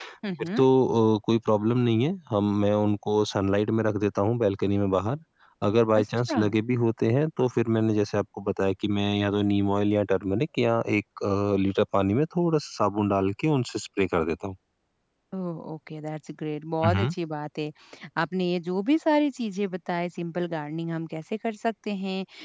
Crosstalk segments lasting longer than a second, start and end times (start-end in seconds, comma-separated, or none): none